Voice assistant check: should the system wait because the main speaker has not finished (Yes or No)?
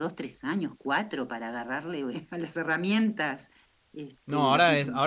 No